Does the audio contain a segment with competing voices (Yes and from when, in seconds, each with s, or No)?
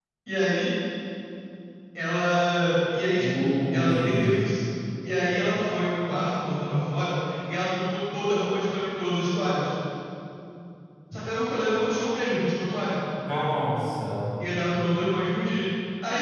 Yes, from 3.2 s